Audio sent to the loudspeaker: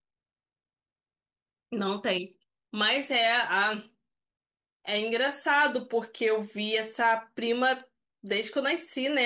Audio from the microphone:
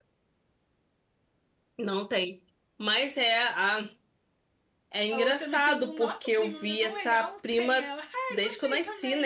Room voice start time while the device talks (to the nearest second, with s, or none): 5 s